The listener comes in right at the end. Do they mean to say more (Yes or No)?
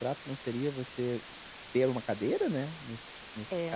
Yes